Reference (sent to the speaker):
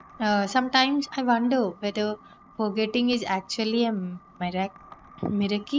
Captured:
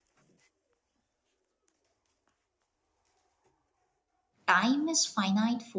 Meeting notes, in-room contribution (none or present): present